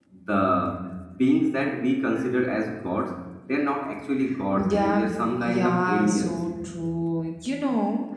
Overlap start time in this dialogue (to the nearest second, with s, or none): 5 s